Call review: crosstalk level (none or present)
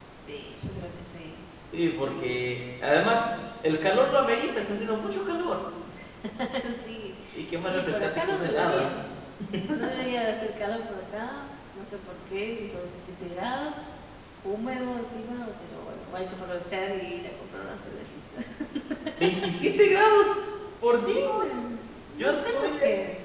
present